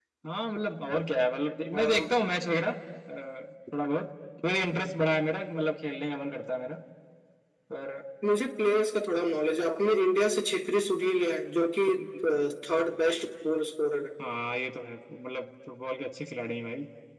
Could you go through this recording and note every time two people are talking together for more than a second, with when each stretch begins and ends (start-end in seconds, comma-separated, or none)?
none